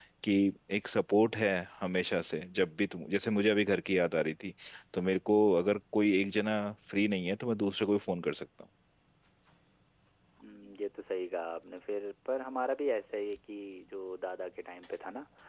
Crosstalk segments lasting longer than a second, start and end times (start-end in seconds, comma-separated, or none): none